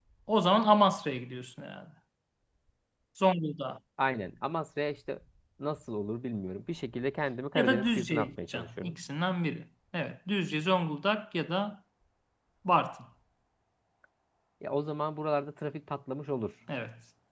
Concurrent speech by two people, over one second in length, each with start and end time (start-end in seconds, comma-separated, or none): 7.5-9.0